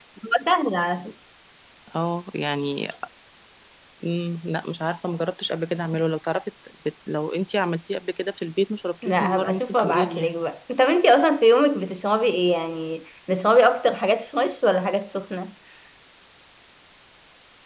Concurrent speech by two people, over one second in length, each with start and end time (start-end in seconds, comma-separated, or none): 9.0-10.4